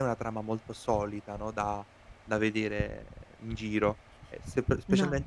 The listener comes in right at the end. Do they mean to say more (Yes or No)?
No